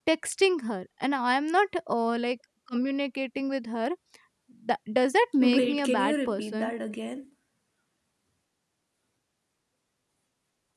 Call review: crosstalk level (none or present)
present